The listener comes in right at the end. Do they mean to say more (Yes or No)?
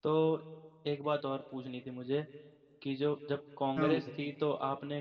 No